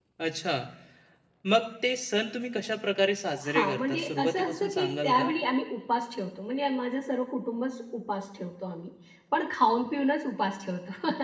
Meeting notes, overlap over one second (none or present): present